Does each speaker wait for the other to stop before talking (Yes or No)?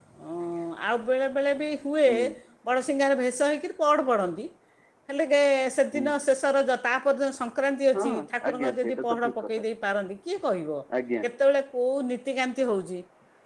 No